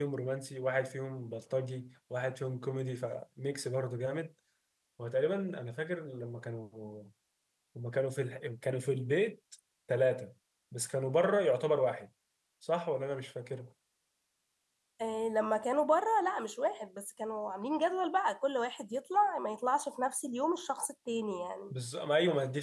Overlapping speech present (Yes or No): No